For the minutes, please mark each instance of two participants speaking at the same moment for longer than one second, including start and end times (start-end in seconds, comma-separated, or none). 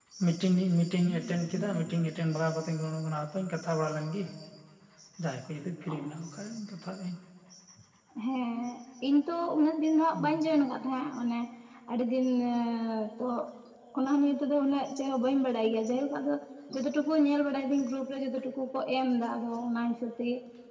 none